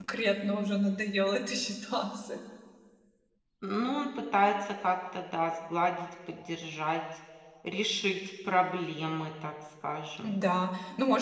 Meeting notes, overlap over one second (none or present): none